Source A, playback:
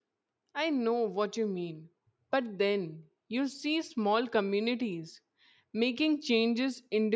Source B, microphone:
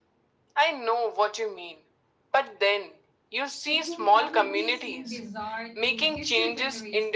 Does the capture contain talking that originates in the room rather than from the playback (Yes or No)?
Yes